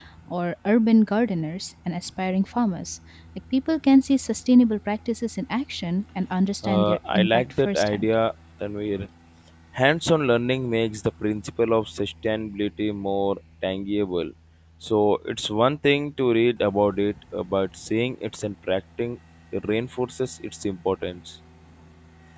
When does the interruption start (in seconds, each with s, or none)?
6.6 s